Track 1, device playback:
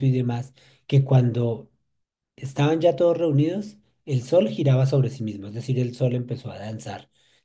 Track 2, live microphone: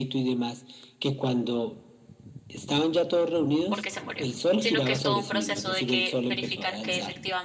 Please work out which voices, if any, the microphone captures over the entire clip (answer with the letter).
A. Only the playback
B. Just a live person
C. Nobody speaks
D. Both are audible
D